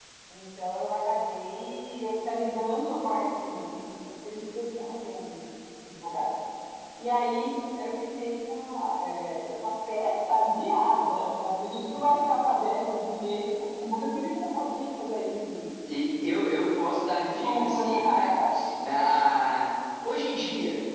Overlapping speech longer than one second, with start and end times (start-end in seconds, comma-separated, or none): 17.2-18.7